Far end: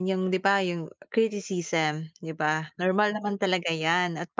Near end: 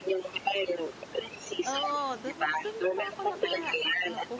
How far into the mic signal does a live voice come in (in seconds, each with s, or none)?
1.7 s